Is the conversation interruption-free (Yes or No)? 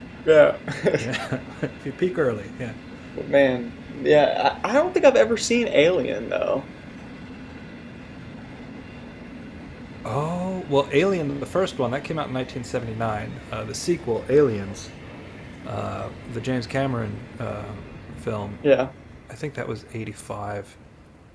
Yes